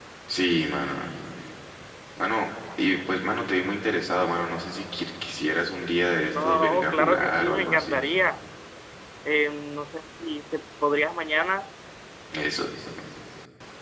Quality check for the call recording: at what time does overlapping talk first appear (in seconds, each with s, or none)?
6.3 s